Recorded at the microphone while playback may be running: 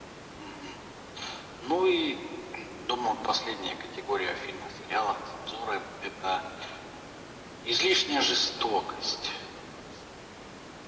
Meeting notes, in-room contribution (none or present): none